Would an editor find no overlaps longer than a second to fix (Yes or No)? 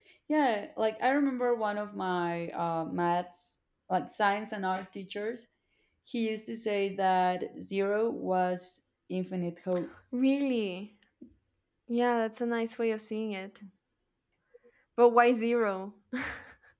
Yes